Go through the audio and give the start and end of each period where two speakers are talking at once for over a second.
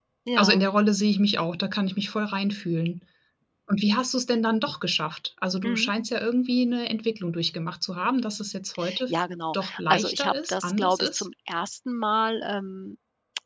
9.5-11.3

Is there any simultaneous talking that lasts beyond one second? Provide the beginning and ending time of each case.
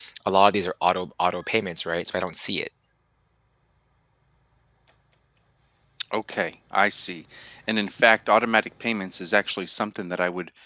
none

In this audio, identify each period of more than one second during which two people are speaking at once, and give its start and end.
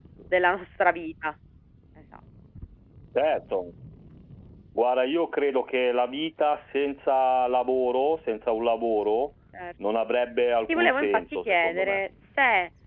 10.7-12.0

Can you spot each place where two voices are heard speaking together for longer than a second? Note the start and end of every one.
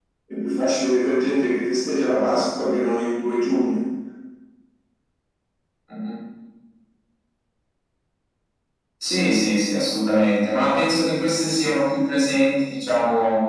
none

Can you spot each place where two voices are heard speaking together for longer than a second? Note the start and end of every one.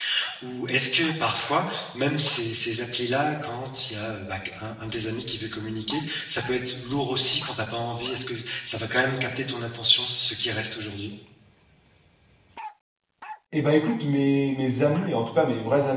none

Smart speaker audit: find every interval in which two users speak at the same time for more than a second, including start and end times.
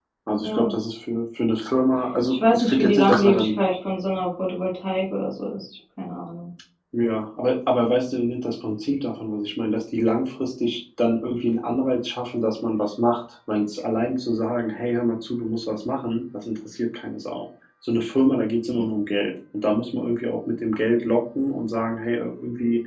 2.3-3.5

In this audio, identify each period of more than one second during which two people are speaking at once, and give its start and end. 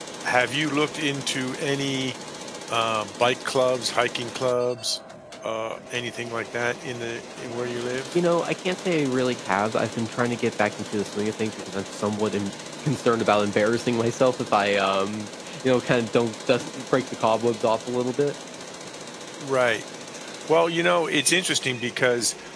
none

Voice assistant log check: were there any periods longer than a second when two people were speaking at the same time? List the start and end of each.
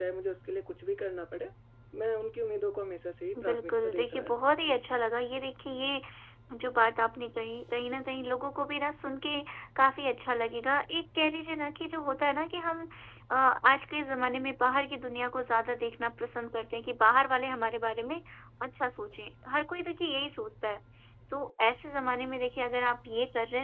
3.4-4.8

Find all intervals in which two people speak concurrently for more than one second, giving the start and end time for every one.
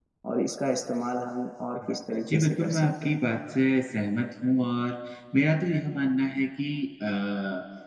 1.8-3.1

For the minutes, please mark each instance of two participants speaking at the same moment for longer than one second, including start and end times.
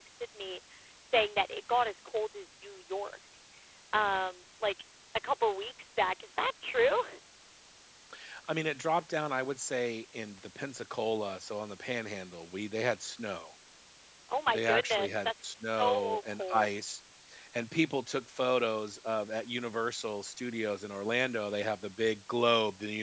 14.5-16.7

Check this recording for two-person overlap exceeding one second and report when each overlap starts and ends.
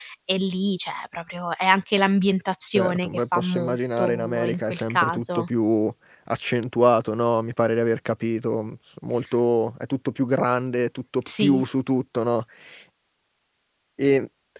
2.8-5.5

